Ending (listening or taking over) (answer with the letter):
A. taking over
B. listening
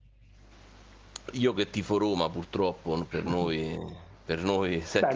A